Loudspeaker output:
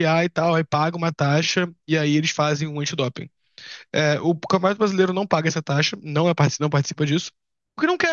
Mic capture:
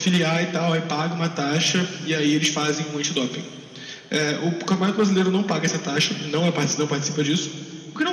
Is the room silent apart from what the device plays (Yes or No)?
Yes